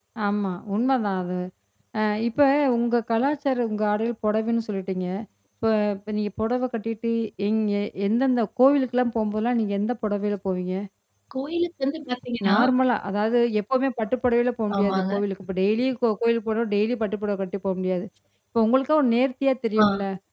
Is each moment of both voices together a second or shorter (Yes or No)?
Yes